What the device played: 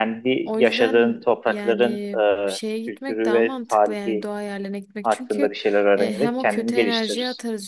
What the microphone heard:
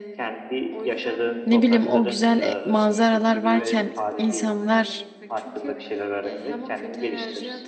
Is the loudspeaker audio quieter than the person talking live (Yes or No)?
Yes